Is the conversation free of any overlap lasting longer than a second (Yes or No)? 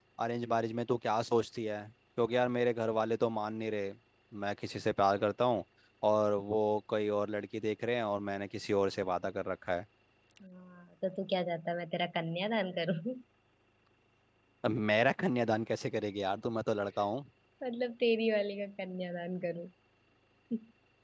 Yes